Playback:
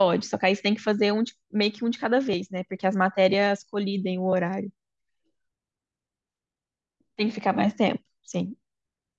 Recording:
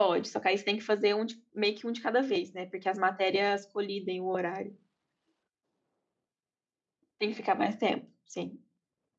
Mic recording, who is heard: echo only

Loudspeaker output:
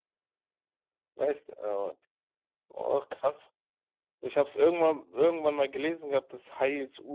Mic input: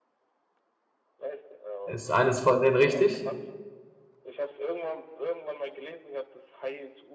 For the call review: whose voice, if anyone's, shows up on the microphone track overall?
both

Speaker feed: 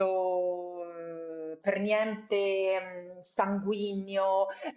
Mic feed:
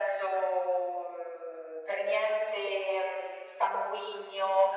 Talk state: echo only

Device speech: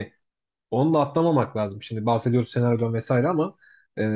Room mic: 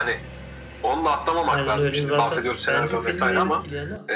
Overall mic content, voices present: both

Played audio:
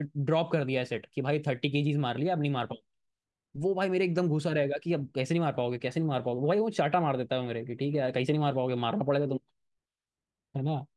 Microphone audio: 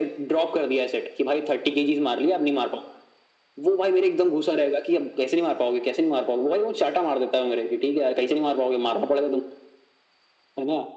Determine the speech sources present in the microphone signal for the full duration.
echo only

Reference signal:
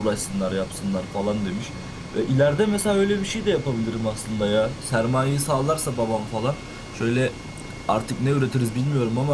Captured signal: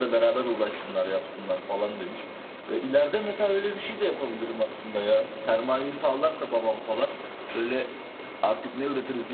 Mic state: echo only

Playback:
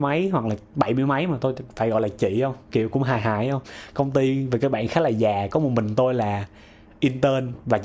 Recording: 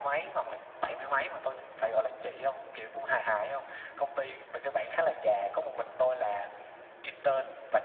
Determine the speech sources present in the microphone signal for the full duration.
echo only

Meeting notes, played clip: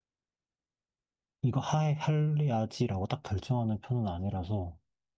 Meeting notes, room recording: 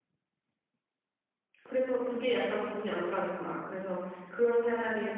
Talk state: user only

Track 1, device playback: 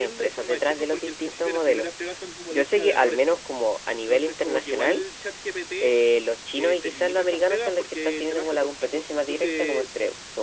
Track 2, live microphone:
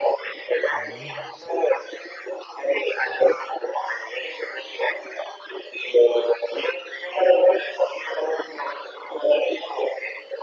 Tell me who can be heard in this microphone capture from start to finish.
both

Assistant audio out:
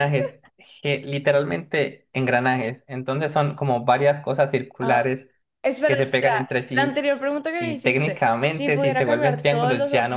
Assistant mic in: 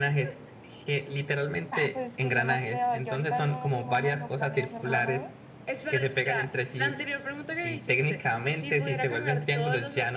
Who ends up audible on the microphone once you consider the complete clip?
both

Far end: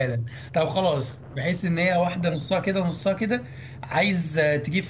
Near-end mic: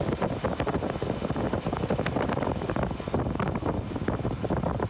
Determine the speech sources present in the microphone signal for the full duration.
neither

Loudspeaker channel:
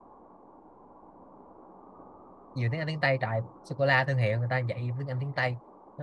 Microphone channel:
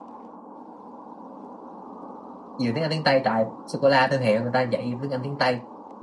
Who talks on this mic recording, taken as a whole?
echo only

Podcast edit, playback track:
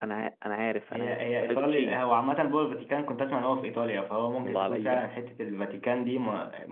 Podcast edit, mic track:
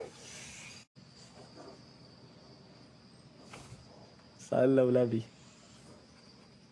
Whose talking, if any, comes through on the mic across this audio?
user only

